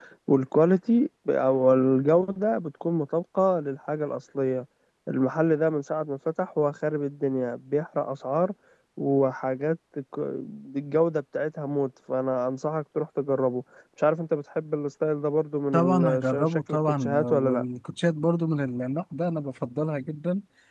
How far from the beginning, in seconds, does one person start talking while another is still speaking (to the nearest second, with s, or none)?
16 s